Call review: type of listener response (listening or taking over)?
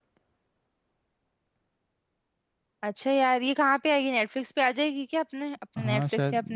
taking over